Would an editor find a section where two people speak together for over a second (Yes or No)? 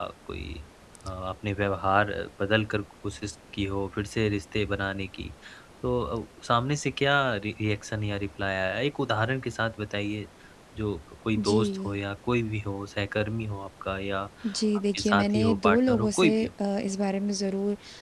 Yes